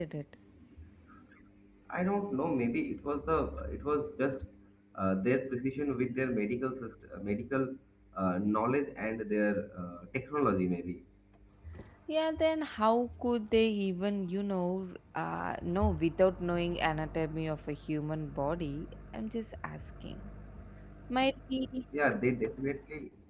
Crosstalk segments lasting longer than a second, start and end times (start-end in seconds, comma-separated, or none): none